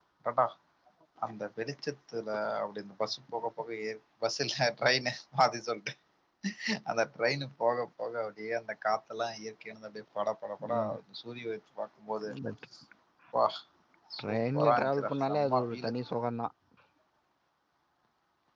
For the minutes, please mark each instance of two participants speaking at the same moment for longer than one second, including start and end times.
14.2-15.9

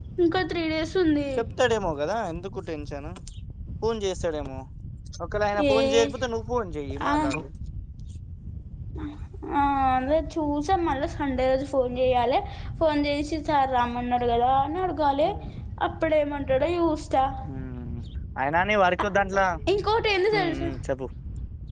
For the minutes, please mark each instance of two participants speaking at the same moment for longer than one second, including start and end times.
none

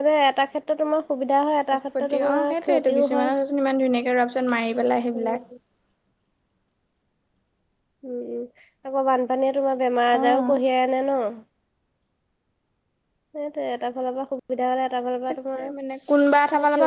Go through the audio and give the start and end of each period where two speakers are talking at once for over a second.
2.0-3.3

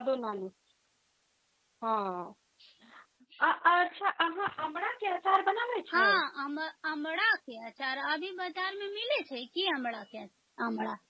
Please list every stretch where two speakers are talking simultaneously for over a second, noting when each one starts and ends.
none

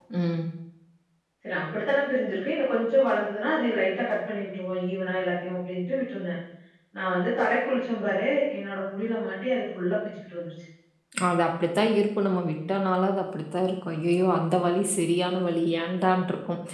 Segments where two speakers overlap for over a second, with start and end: none

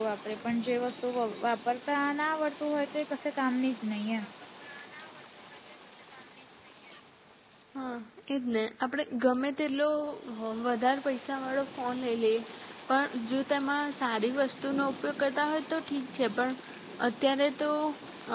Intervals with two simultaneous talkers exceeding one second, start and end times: none

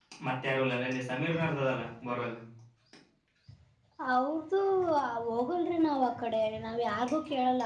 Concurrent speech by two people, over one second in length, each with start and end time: none

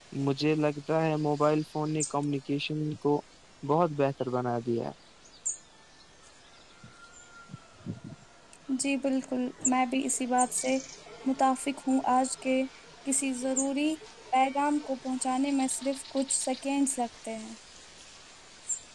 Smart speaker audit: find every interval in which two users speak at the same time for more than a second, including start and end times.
none

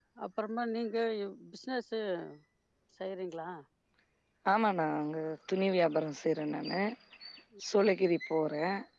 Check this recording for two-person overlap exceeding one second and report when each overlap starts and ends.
none

